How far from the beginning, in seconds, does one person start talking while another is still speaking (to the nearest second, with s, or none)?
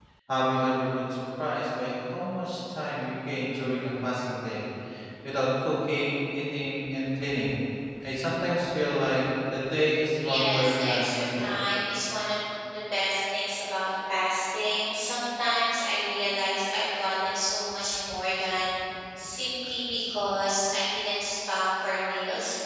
10 s